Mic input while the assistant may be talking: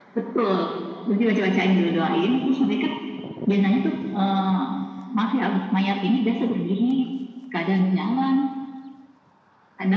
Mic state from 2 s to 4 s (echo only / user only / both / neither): echo only